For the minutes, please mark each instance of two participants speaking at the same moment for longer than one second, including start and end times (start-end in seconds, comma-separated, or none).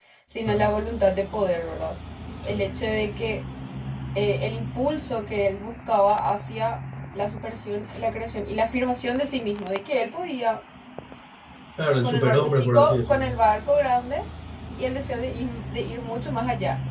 12.0-13.3